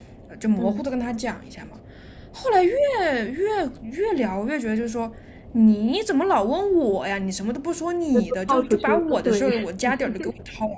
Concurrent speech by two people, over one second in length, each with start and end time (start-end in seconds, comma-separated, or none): 8.1-9.5